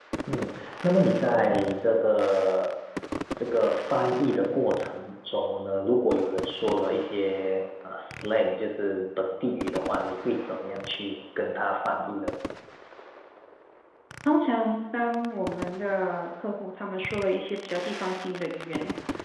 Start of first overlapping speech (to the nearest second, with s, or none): none